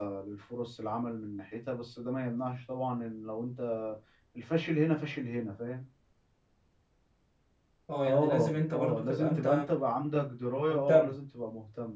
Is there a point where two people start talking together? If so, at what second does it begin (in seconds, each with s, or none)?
8.1 s